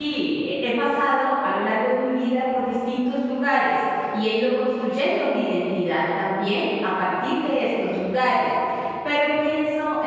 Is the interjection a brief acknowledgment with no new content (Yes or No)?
Yes